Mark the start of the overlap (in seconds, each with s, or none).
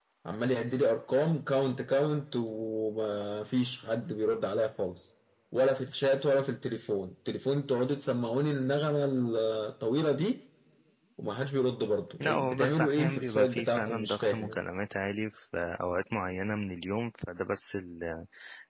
12.2 s